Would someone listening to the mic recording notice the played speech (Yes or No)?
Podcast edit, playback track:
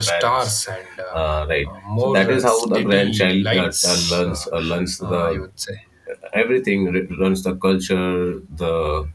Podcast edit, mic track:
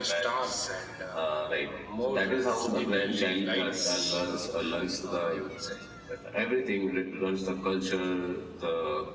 Yes